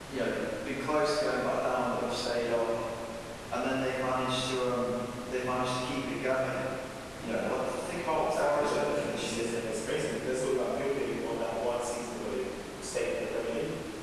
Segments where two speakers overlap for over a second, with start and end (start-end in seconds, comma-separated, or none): 8.3-9.6